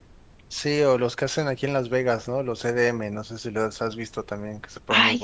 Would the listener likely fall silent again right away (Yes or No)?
No